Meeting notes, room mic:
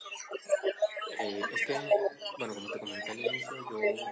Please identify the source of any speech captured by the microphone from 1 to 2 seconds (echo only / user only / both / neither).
both